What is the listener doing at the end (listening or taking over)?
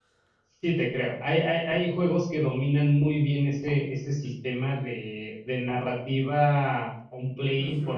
taking over